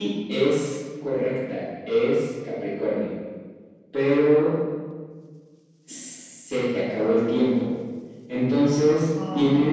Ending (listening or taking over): listening